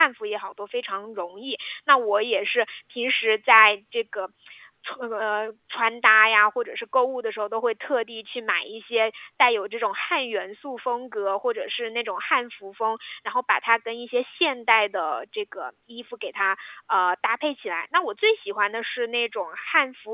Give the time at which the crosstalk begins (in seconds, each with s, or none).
none